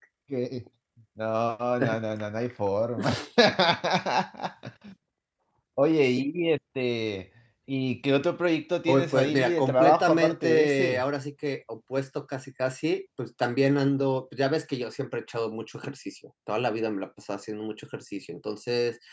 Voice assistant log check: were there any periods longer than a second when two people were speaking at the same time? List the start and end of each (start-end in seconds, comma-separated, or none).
8.9-11.0